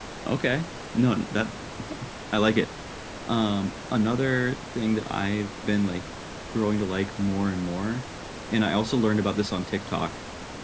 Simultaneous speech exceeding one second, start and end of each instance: none

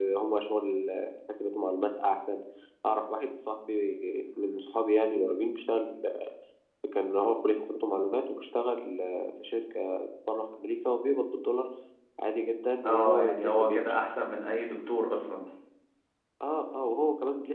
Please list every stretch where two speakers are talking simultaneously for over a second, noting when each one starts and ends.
12.8-14.1

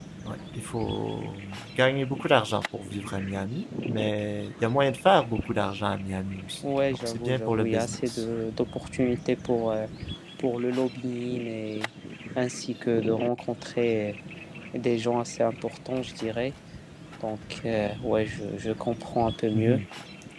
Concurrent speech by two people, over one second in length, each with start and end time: 6.6-8.2

